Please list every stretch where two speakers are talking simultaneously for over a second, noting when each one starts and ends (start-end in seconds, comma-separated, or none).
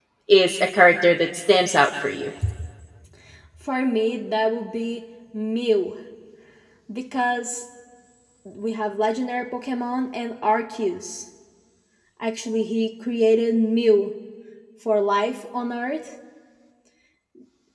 none